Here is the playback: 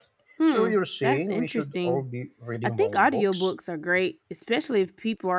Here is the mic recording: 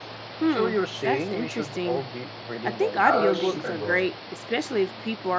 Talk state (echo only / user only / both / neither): both